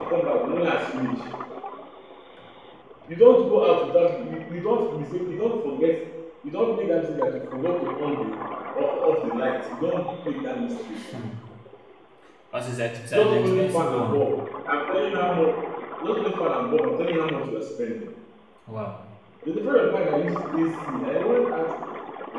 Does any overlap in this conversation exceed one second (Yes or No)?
Yes